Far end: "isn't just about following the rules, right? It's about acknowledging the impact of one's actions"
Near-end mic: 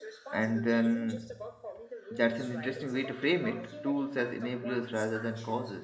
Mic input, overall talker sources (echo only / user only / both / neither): both